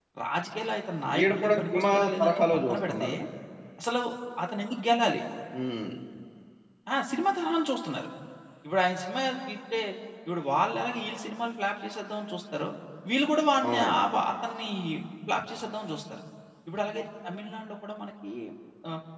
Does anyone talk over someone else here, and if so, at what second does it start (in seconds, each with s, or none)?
1.2 s